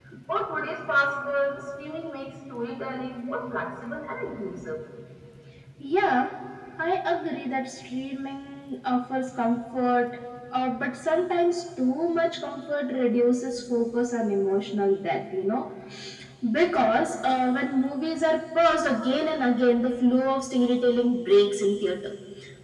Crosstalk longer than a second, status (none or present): none